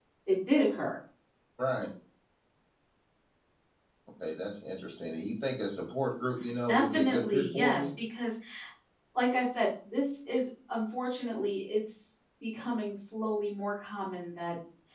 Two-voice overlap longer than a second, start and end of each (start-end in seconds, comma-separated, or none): 6.7-7.9